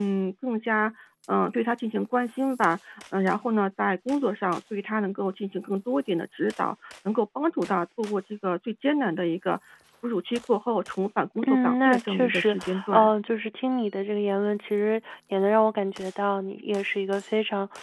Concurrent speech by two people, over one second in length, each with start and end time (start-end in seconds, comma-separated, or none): 11.5-13.1